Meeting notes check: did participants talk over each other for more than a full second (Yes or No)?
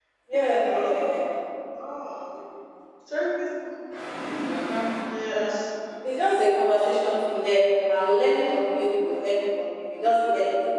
No